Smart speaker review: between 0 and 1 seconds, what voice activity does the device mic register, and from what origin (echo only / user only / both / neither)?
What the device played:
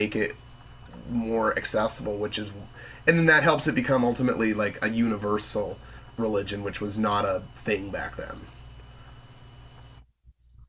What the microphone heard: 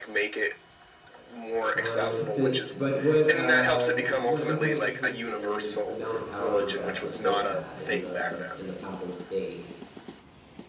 echo only